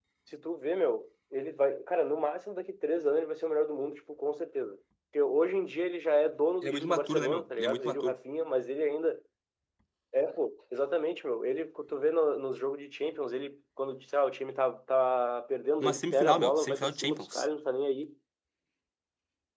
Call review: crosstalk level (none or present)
present